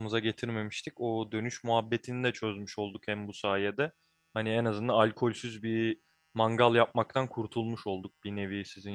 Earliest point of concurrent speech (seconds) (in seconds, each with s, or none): none